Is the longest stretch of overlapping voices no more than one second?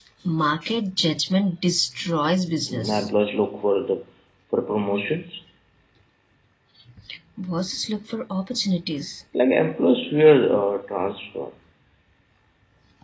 Yes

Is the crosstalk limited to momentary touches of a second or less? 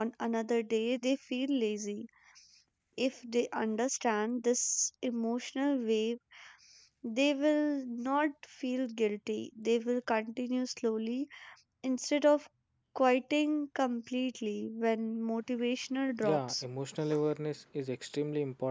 Yes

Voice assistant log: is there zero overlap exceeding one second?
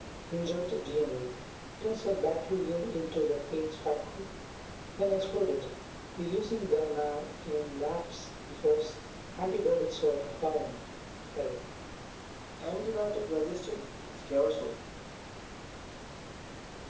Yes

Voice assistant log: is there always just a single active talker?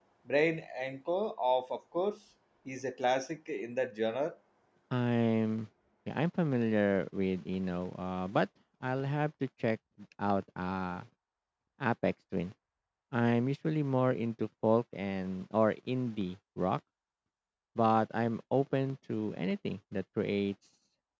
Yes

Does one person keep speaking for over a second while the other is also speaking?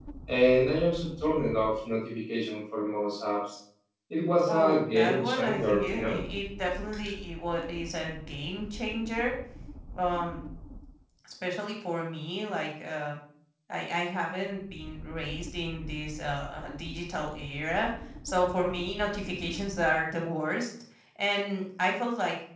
Yes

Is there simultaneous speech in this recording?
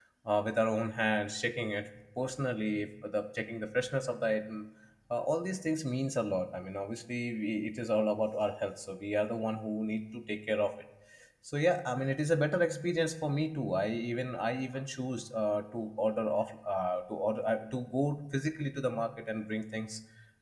No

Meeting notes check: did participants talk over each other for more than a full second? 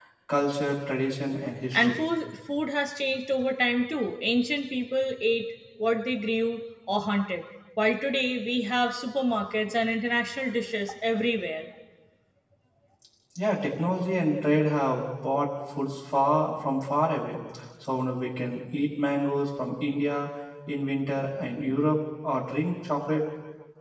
No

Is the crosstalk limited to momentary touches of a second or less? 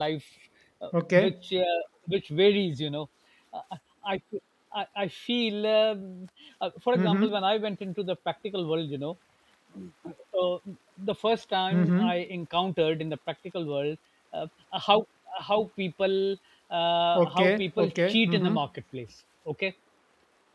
No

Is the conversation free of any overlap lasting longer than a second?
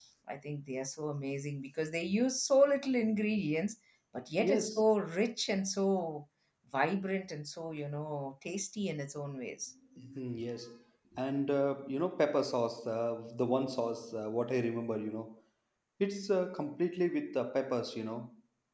Yes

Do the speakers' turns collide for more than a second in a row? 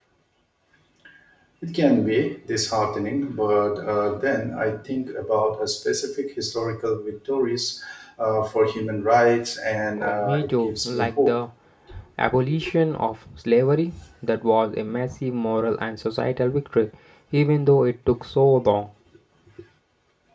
Yes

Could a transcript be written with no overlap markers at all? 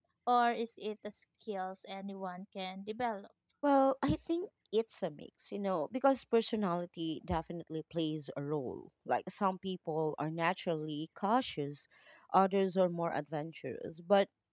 Yes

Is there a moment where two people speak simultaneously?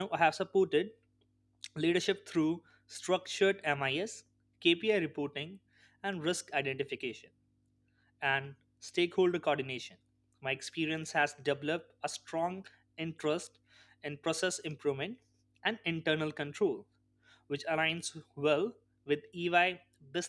No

